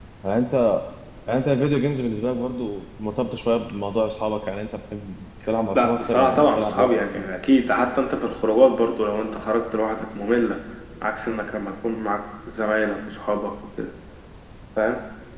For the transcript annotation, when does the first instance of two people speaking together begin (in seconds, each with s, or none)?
5.8 s